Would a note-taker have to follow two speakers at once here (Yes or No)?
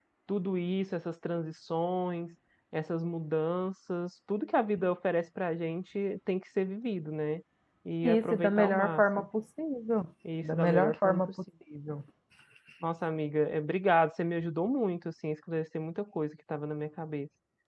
Yes